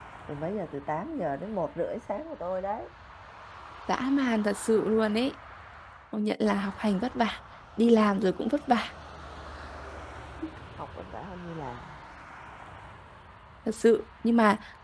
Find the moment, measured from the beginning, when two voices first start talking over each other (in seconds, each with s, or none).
none